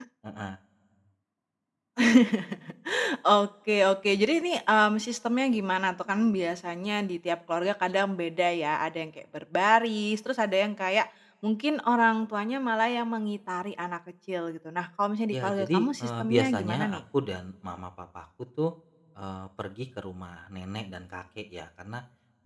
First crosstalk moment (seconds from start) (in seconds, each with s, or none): 15.3 s